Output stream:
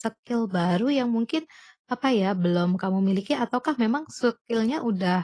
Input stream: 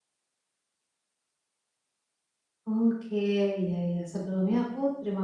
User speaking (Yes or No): Yes